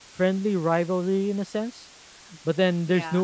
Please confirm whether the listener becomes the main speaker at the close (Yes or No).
No